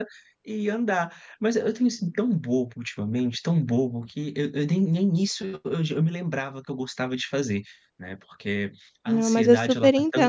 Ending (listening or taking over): taking over